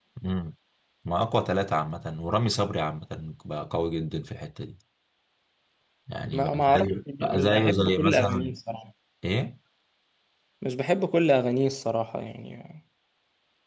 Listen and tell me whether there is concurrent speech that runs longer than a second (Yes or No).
Yes